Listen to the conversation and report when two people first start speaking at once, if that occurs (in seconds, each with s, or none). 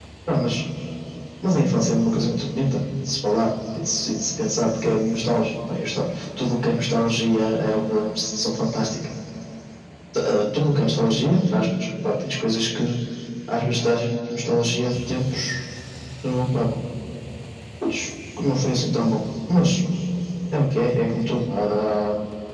none